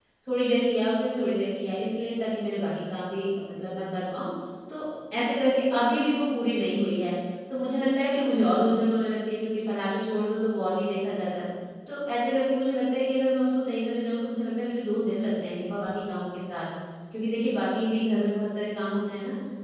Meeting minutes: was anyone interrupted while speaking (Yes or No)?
No